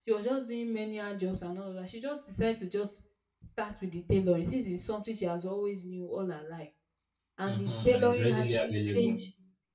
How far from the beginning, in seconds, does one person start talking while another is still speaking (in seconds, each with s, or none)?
7.5 s